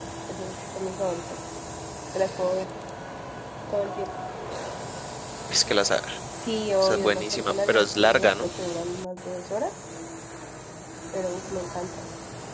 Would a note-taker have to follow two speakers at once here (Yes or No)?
Yes